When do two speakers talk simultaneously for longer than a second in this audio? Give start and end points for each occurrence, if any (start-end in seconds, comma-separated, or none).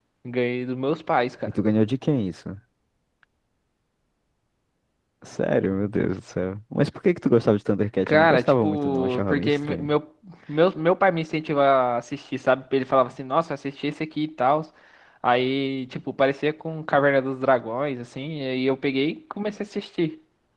8.1-9.9